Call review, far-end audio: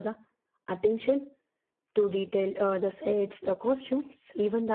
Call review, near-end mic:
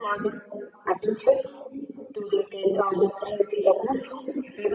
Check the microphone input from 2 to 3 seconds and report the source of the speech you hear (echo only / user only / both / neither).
echo only